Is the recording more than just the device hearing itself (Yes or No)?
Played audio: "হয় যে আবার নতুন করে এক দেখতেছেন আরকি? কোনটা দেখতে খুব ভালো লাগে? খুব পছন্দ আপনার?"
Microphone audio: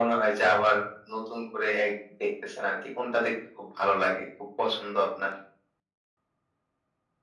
No